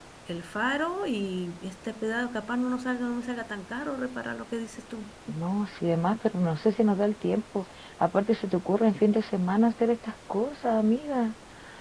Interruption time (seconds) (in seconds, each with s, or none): none